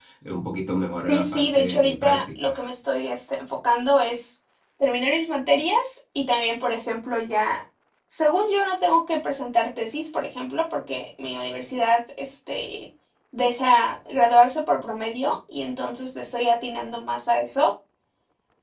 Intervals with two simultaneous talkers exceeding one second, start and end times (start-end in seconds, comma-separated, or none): 0.9-2.6